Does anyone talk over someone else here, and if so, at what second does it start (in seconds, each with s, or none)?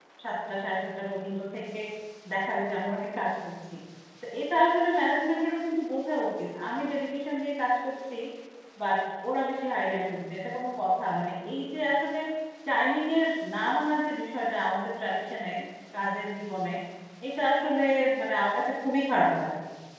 none